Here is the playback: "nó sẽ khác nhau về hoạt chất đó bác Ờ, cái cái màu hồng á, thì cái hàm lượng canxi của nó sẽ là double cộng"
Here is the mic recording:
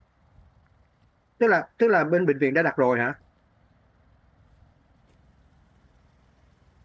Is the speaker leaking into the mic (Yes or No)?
No